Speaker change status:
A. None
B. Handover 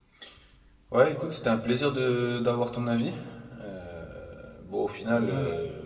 A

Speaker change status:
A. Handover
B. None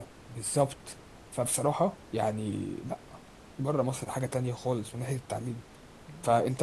B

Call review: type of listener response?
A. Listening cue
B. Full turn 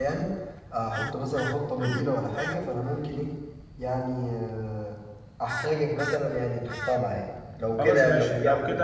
B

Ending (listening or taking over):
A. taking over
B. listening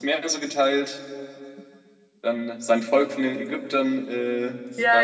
A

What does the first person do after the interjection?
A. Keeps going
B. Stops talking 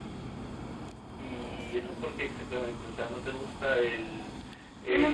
B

